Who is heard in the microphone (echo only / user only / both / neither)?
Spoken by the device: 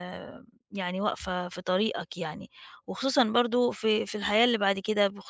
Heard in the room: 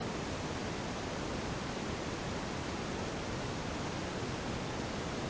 neither